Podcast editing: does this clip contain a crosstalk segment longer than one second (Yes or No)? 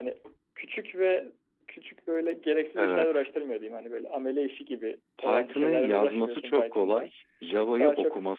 Yes